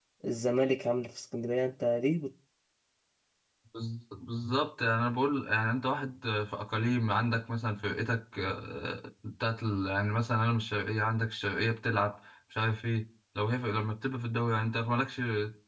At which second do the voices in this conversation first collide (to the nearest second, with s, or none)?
none